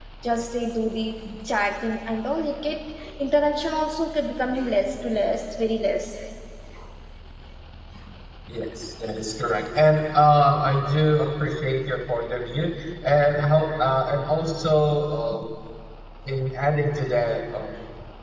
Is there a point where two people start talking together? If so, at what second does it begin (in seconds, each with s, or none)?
none